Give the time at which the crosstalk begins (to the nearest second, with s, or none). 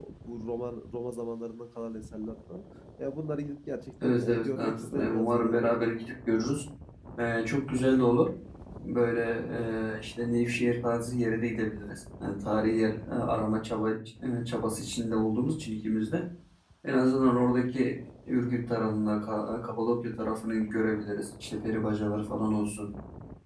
4 s